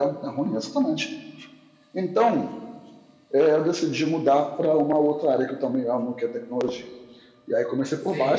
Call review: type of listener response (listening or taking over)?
listening